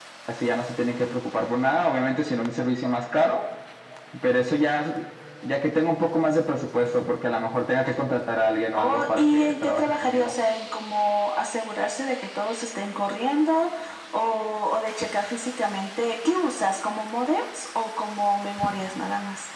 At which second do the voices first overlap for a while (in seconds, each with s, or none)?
8.7 s